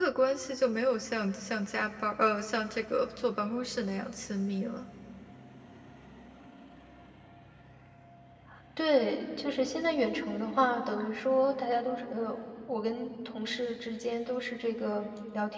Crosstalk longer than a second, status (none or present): none